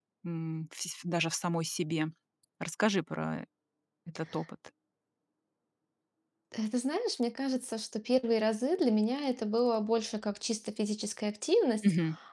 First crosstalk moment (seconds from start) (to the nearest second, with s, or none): none